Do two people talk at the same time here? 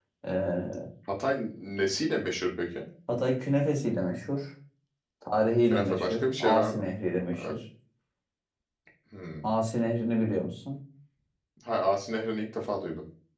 Yes, from 5.6 s

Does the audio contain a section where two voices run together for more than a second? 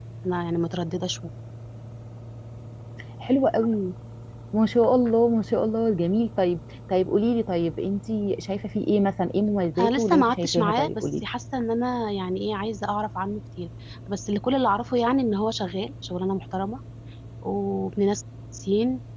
Yes, from 9.8 s

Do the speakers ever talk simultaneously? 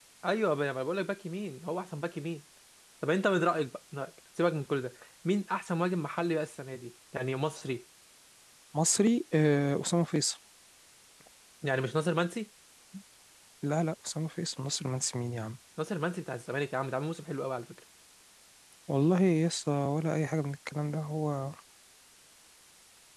No

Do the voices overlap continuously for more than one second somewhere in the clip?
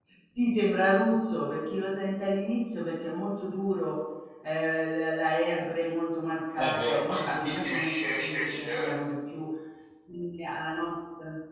Yes, from 6.6 s

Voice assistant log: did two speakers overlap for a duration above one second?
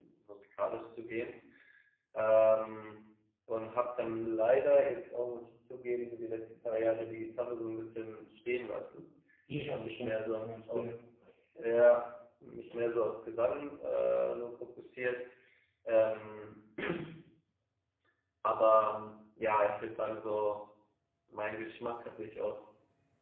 Yes, from 9.7 s

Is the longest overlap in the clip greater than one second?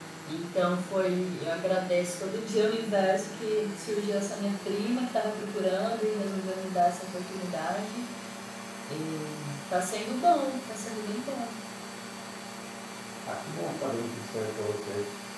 No

